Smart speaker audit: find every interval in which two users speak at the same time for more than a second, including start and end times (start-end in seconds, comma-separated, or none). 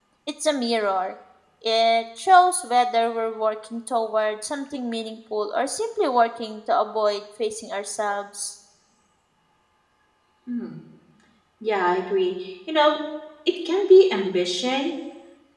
none